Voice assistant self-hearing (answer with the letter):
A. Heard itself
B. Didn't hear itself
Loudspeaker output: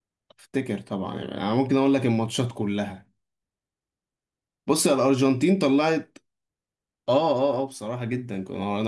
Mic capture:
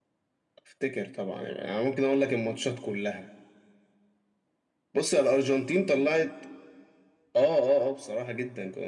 A